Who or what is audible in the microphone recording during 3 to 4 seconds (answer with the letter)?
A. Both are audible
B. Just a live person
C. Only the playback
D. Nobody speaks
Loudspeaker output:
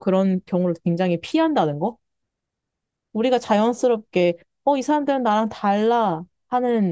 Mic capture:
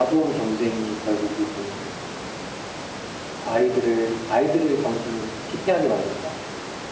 B